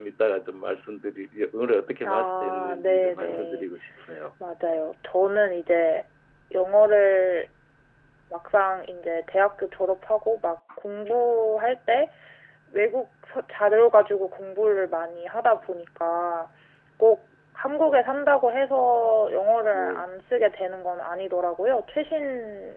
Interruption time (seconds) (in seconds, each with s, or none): 2.0 s